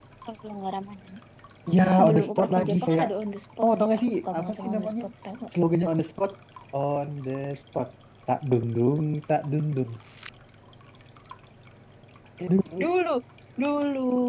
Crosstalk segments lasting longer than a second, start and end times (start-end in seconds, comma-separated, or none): 1.8-3.1, 3.6-4.9